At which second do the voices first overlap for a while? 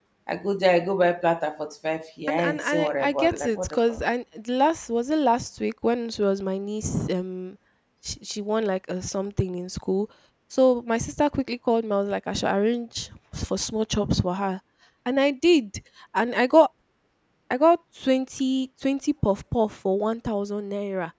2.3 s

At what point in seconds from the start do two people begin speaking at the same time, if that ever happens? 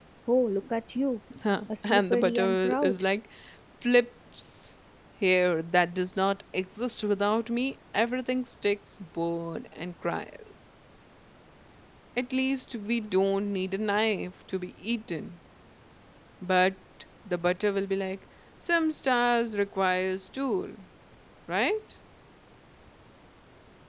1.8 s

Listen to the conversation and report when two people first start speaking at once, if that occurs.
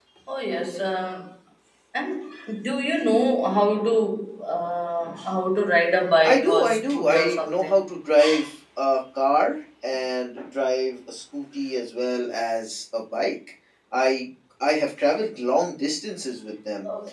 6.2 s

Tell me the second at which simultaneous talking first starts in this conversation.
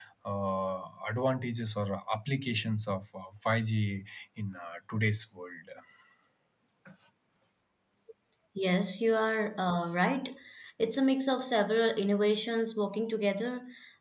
none

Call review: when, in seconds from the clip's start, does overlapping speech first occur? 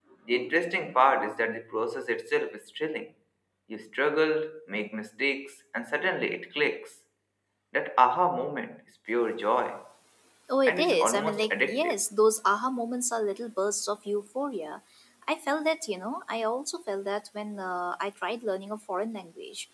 10.7 s

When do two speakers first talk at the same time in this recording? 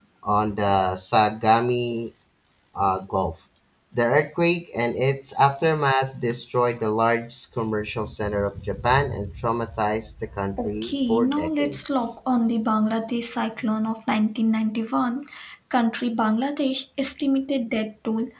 10.6 s

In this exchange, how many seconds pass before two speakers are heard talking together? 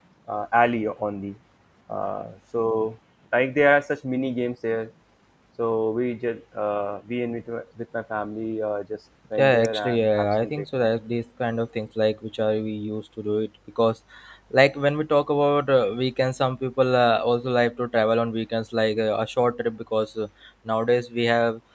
9.4 s

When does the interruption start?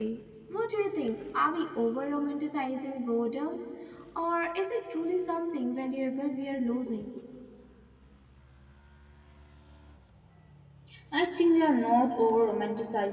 none

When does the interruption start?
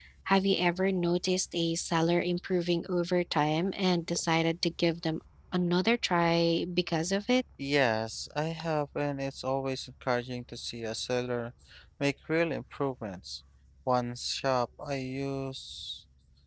none

